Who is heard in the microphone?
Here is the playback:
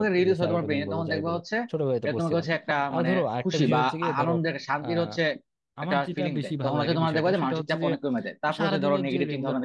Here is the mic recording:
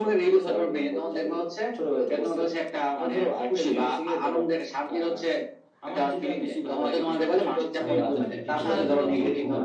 both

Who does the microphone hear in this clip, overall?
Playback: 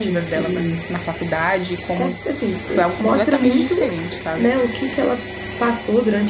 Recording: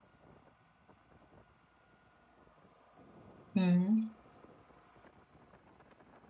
user only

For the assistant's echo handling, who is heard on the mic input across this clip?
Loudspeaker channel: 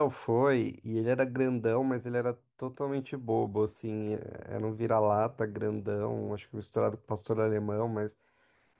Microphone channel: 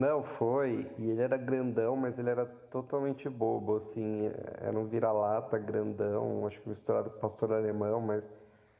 echo only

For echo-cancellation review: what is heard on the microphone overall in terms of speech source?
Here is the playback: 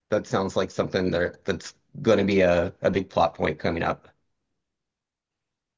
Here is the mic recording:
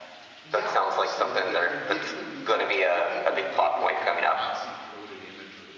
both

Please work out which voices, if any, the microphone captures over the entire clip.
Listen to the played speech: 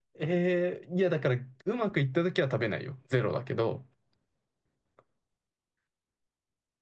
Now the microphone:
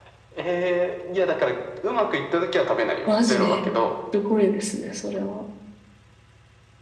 both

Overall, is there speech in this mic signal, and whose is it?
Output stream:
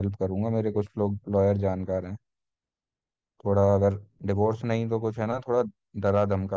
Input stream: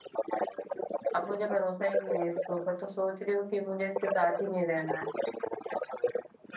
both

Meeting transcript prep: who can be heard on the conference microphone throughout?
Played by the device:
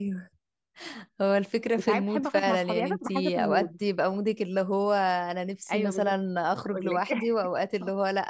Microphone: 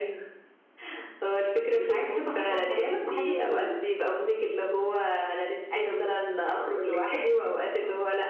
echo only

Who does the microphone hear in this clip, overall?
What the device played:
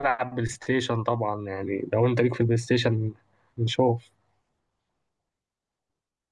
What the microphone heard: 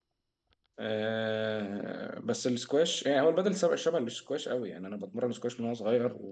user only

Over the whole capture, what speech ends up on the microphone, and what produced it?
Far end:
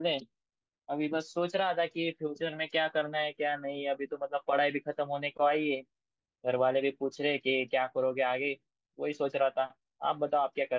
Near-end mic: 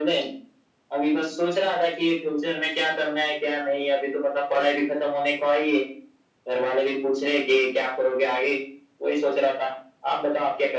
echo only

